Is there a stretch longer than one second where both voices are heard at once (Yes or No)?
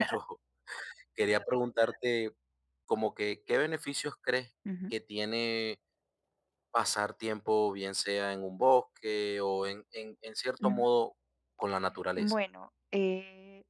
No